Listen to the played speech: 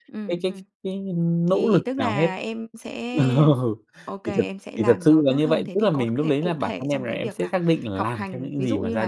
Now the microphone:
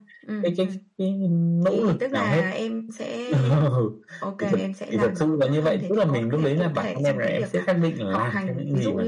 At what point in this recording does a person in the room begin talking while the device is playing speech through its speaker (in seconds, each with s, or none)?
none